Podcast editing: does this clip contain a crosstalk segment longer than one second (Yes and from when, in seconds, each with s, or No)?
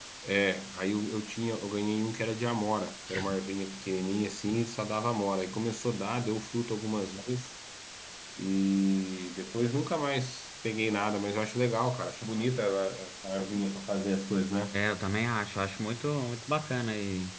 No